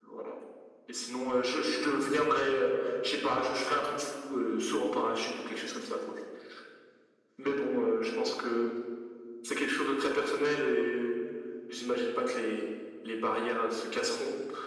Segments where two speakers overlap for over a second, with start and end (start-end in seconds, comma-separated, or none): none